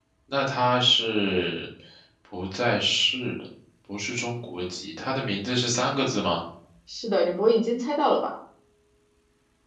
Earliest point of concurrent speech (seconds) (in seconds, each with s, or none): none